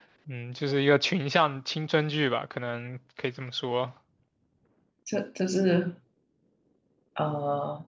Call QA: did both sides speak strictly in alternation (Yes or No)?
Yes